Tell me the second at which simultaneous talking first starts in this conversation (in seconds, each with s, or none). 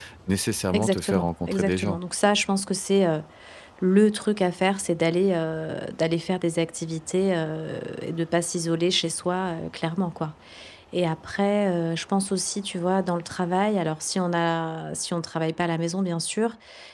0.7 s